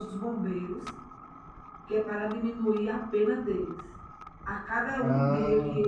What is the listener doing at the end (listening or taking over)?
listening